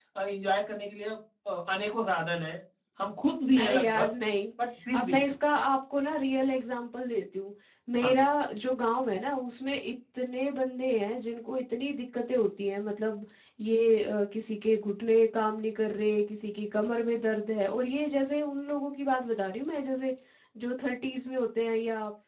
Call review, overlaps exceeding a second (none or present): none